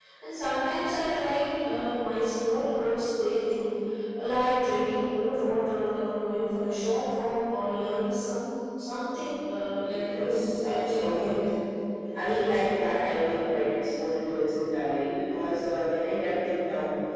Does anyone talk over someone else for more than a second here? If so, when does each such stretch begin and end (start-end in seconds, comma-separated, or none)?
9.8-11.3